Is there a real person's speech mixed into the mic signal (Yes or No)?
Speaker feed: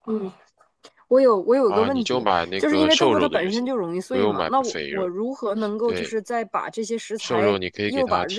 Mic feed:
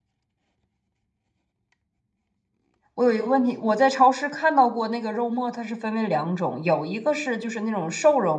Yes